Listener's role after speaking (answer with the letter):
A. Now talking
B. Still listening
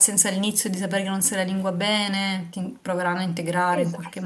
A